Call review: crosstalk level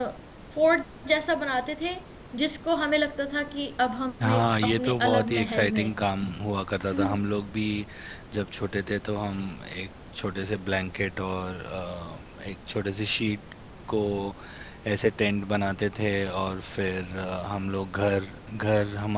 present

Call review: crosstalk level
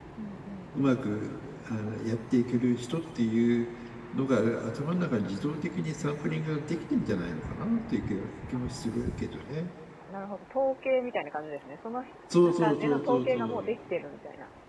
present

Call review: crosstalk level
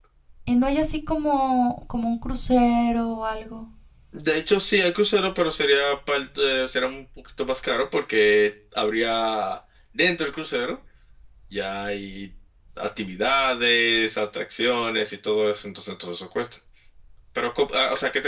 none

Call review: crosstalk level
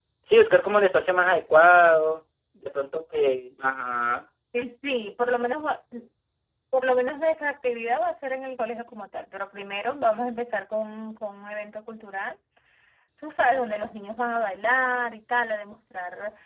none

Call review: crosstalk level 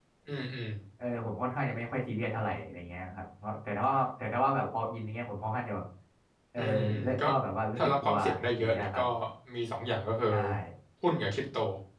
present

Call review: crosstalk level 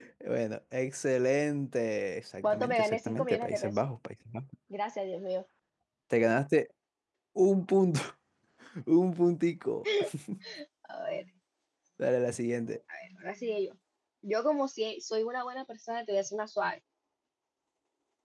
present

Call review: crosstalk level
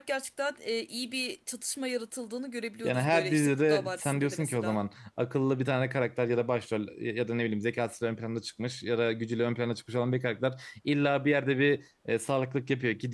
present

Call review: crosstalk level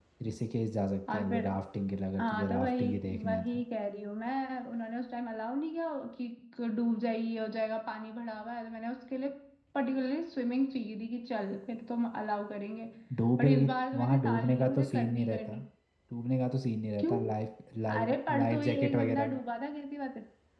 present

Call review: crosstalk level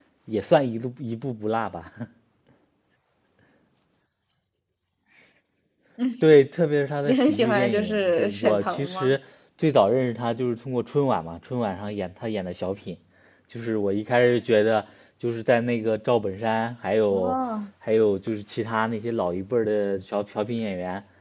present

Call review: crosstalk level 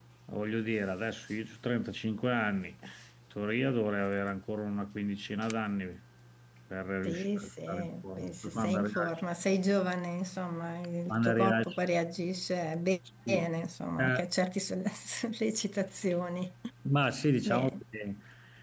present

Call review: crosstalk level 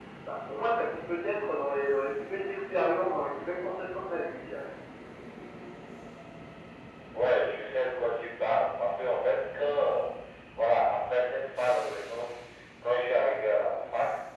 none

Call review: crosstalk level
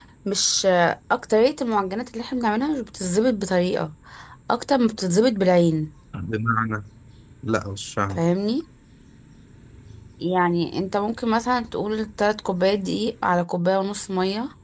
none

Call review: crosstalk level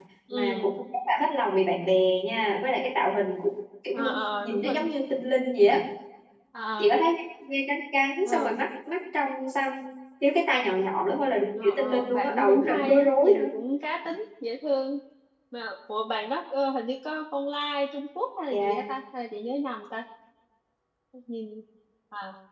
present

